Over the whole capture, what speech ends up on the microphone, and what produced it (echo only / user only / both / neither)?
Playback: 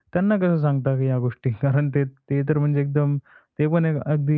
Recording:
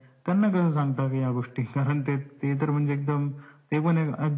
echo only